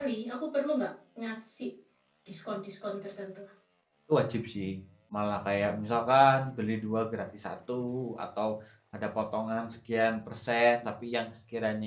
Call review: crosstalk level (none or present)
none